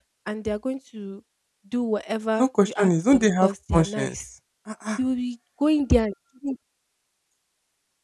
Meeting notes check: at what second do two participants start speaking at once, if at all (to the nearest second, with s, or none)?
2 s